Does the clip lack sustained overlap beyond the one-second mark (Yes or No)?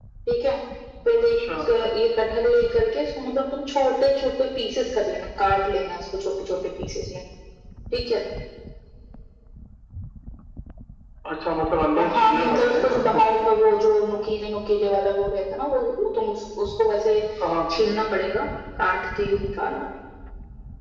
No